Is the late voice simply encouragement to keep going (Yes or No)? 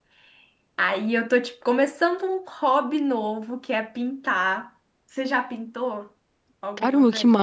No